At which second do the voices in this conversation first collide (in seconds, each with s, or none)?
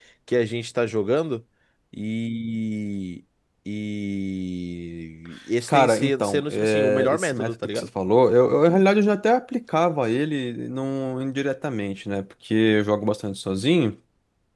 5.7 s